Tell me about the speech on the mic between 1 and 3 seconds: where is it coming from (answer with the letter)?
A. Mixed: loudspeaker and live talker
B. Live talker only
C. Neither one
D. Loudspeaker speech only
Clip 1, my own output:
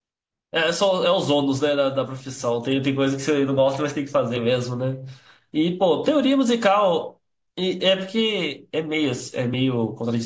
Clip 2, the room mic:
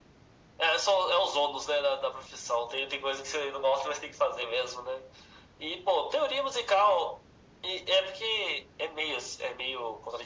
D